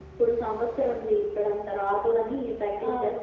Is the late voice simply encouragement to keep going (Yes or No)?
No